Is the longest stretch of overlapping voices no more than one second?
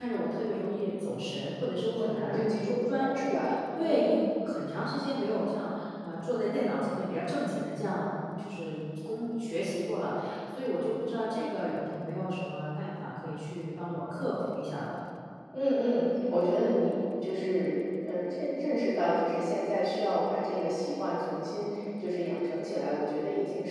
No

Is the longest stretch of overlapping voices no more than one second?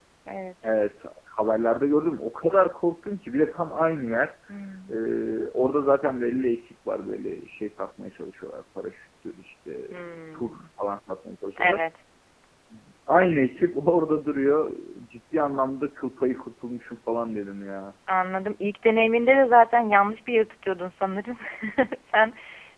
Yes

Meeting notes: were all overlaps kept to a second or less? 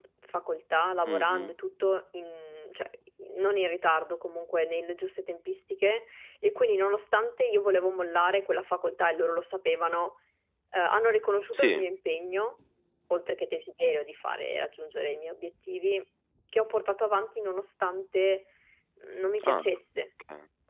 Yes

